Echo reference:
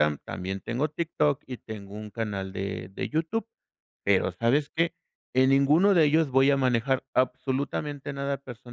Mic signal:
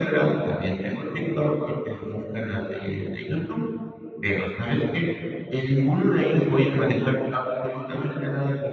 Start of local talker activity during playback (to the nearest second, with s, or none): none